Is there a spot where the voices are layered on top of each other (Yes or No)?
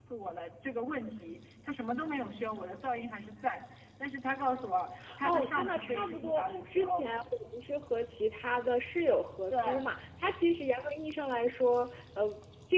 Yes